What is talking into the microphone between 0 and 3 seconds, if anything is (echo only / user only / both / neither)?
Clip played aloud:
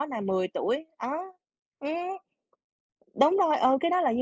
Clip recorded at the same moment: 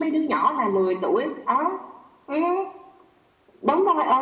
echo only